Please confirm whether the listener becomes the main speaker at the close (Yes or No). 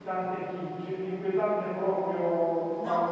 Yes